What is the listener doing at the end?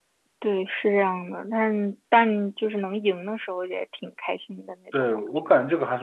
taking over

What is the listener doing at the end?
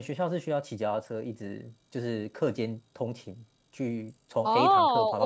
taking over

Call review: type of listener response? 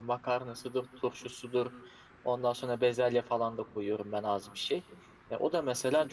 listening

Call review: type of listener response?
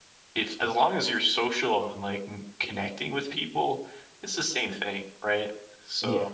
listening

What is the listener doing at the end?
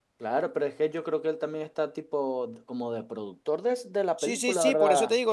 taking over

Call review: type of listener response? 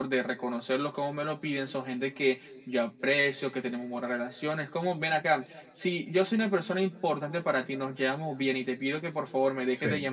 listening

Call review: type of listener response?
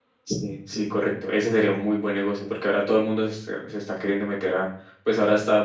listening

